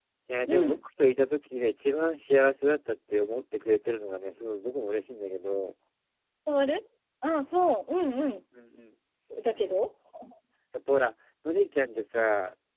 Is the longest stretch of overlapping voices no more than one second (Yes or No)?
Yes